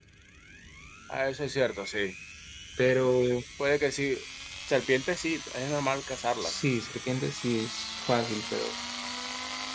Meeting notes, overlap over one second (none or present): none